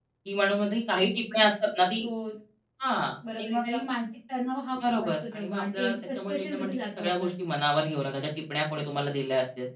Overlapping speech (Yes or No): Yes